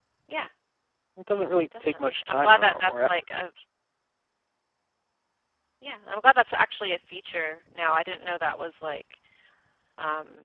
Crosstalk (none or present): present